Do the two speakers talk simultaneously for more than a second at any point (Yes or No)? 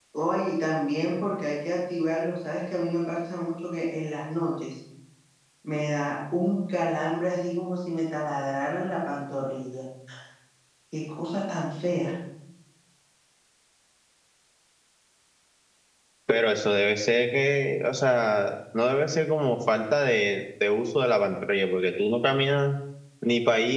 No